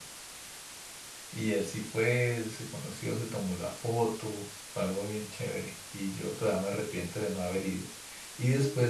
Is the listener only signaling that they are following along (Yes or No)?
Yes